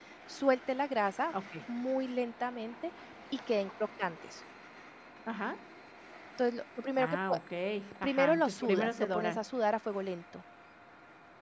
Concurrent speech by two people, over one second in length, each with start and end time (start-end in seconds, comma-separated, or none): 8.0-9.4